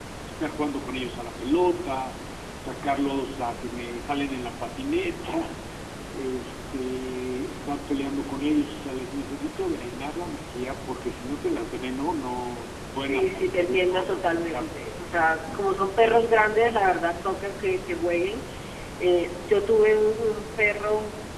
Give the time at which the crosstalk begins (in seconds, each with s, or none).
13.1 s